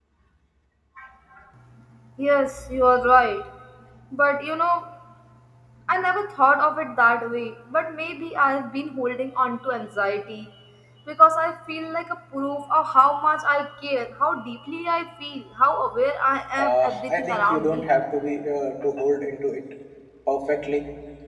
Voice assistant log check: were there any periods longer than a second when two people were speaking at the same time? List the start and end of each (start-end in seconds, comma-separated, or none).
16.6-17.9